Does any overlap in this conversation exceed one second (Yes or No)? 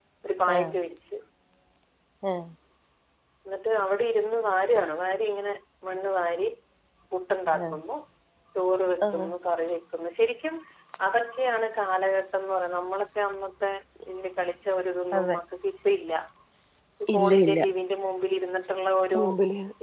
No